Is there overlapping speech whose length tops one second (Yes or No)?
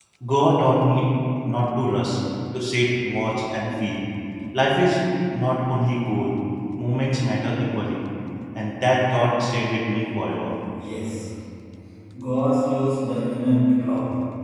No